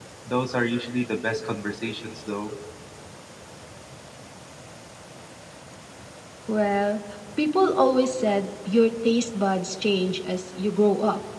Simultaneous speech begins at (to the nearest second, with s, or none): none